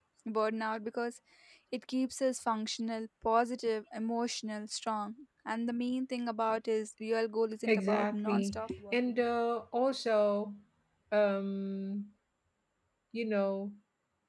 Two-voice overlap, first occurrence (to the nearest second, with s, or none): 8 s